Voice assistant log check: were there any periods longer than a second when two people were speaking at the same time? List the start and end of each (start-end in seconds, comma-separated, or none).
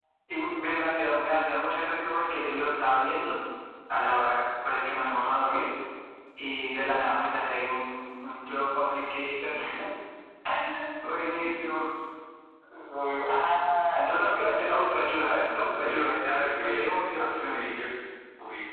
15.8-17.6